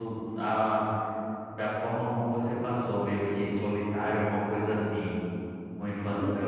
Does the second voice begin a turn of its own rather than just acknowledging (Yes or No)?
Yes